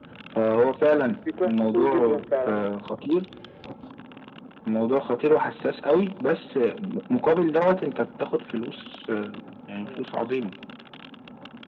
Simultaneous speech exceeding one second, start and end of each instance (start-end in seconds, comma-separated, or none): 1.4-2.7